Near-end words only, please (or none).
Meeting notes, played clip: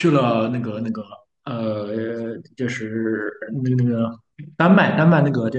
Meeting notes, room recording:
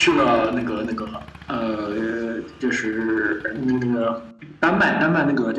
none